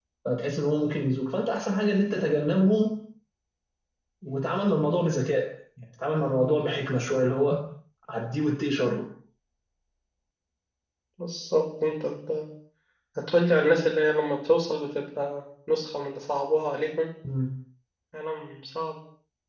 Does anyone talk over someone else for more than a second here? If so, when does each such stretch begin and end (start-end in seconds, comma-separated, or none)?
none